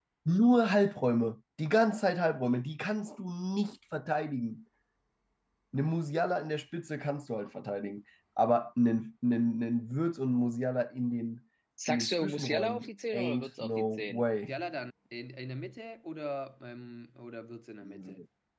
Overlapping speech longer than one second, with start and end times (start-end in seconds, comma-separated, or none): 11.9-14.5